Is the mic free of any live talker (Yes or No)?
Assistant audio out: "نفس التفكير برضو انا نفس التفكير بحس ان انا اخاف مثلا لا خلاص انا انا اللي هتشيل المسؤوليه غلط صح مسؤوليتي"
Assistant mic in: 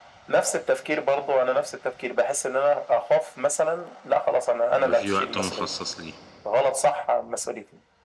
No